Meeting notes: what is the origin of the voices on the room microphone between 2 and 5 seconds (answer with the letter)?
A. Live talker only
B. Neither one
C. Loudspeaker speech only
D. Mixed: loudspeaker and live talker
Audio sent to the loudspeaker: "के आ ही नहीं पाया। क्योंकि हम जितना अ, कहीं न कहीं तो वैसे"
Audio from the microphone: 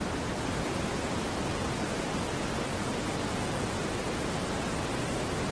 B